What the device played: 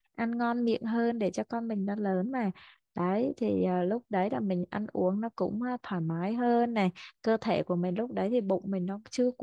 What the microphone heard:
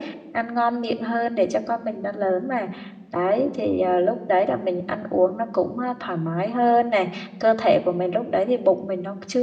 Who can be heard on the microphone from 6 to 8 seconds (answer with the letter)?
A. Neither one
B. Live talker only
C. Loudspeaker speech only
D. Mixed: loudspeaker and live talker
C